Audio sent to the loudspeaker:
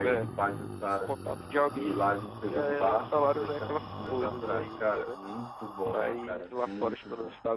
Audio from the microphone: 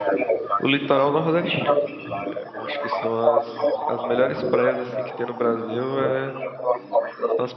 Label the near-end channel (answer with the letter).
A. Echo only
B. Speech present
B